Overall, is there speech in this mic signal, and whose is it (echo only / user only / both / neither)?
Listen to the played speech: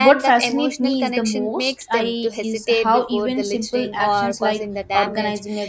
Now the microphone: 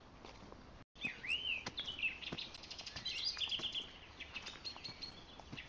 neither